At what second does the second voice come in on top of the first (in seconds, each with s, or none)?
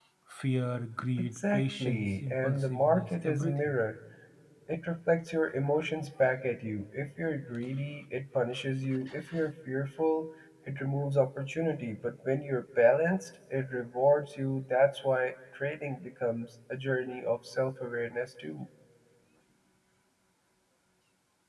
1.2 s